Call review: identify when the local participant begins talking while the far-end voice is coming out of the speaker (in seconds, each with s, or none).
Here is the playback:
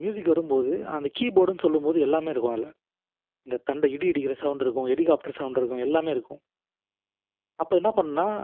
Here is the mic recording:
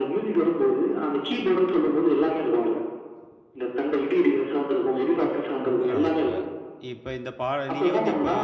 5.7 s